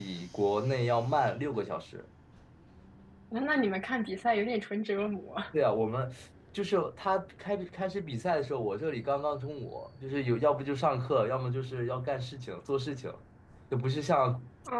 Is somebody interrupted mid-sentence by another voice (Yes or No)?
No